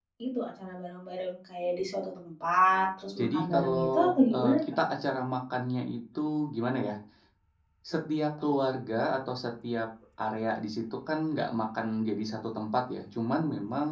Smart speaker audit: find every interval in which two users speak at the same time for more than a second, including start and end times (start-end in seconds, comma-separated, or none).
3.2-4.6